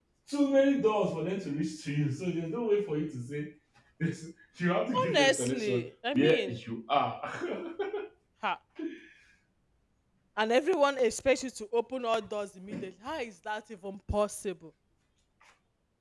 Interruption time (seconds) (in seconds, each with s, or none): 4.9 s